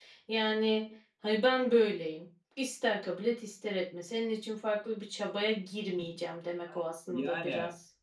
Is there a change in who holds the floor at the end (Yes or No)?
Yes